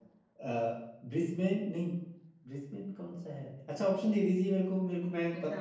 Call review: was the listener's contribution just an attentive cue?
No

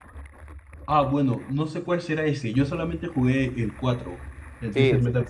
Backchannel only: No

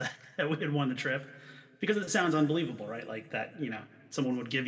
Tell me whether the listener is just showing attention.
Yes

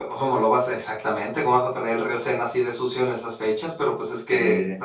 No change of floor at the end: Yes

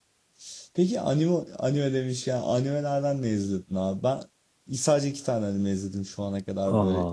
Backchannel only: Yes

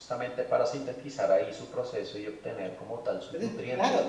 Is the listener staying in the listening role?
No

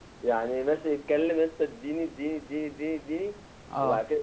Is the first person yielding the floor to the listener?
No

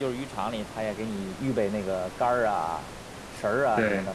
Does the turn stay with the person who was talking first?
Yes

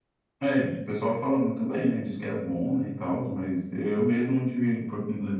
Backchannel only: Yes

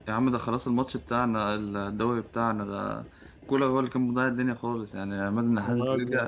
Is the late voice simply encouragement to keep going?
Yes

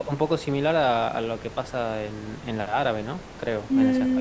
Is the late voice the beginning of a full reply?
Yes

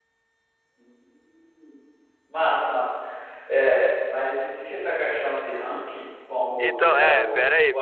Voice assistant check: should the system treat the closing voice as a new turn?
Yes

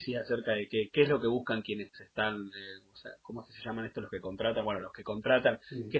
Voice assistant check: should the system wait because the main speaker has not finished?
Yes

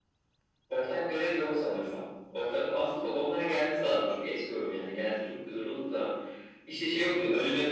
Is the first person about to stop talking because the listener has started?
No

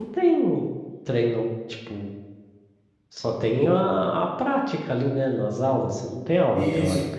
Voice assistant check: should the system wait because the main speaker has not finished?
No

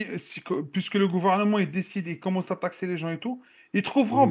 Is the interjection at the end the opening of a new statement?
No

